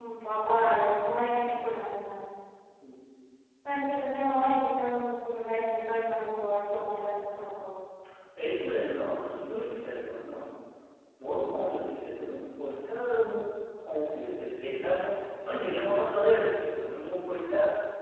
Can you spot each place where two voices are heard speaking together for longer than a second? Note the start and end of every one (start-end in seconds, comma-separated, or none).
none